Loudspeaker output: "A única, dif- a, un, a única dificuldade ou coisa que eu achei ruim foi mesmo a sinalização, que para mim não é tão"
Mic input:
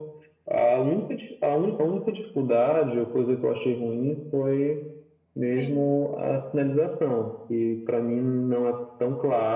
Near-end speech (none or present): present